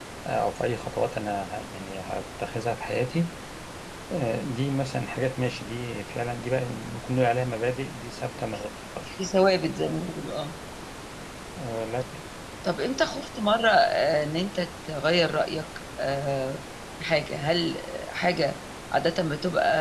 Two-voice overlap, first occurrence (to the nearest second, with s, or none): none